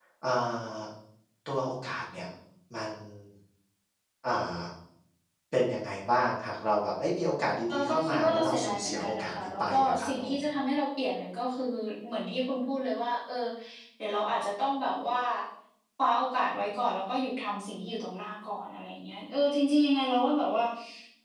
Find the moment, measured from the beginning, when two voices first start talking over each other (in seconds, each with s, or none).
7.7 s